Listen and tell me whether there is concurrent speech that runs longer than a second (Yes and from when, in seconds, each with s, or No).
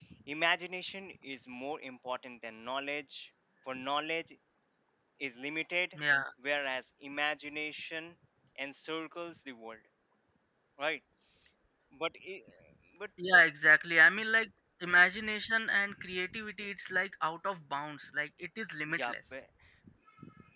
No